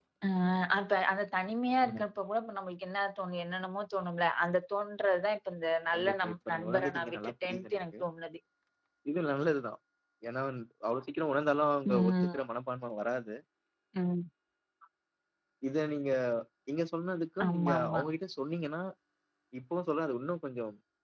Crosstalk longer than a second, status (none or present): present